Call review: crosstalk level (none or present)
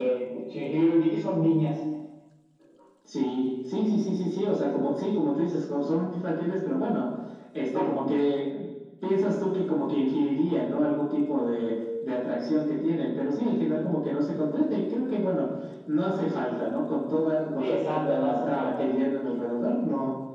present